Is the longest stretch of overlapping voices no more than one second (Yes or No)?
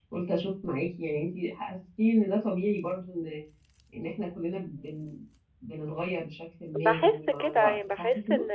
No